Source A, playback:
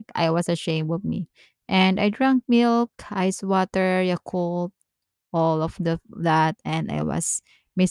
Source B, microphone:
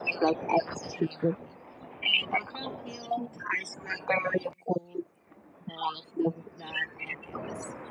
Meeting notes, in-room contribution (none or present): none